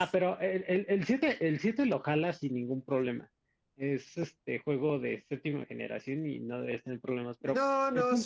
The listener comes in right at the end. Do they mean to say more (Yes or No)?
Yes